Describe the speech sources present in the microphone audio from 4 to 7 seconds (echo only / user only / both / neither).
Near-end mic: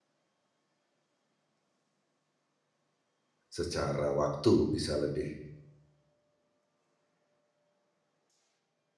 user only